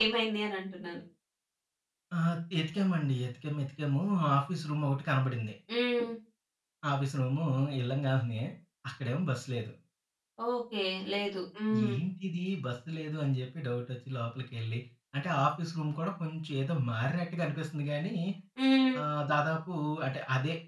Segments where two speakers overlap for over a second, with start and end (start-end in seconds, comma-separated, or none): none